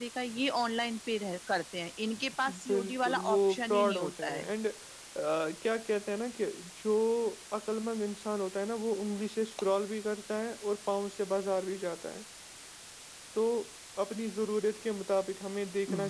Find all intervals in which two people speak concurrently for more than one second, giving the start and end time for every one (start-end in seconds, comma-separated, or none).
2.7-4.5